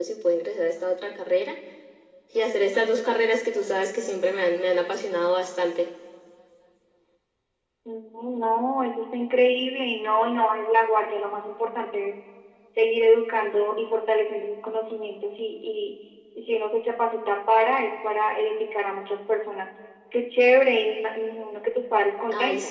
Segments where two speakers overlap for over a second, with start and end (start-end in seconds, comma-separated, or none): none